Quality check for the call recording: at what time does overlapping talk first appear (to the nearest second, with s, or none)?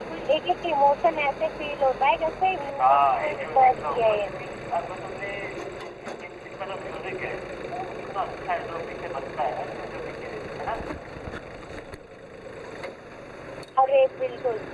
3 s